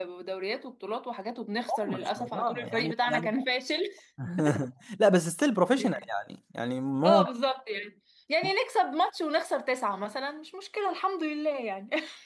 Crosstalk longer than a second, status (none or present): present